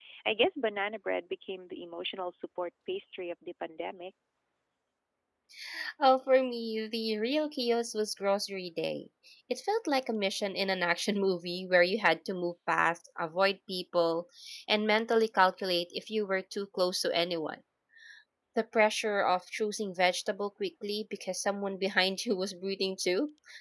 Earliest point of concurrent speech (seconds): none

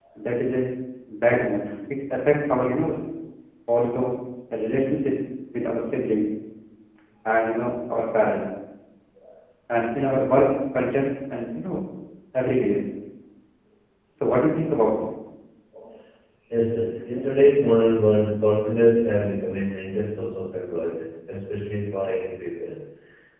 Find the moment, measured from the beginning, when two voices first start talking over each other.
none

